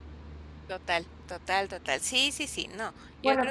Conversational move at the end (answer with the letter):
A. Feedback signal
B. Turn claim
A